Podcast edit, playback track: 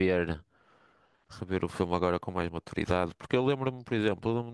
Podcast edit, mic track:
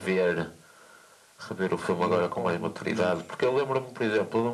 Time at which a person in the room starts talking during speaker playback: 1.9 s

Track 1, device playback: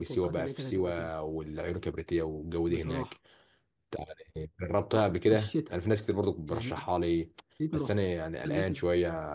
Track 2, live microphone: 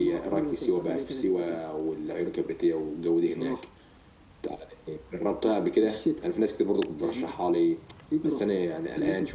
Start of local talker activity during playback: none

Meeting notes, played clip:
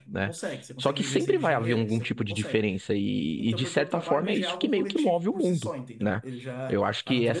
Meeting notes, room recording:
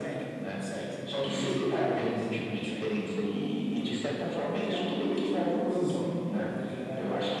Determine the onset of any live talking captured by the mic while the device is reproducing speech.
none

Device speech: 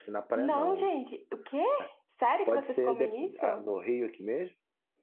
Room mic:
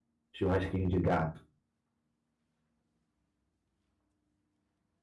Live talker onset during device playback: 0.3 s

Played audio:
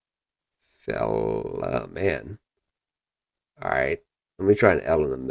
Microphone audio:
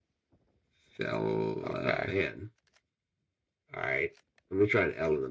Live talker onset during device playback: 1.7 s

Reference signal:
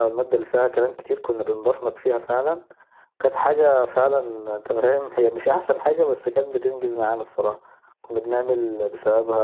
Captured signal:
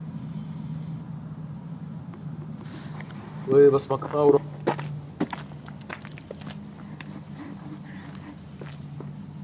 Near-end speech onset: 3.5 s

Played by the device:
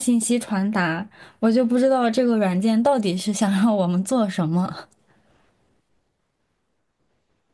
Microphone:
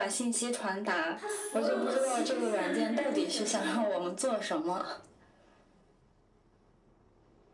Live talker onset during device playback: 1.1 s

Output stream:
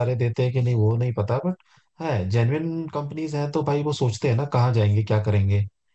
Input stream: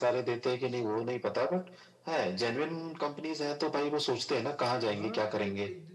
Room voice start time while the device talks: 4.8 s

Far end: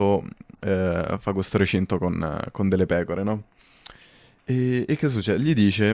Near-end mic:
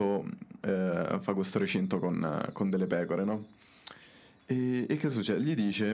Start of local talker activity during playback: none

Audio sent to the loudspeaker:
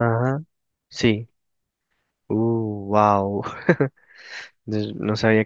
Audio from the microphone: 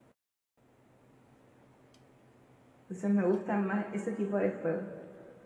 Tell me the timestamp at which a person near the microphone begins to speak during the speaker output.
2.8 s

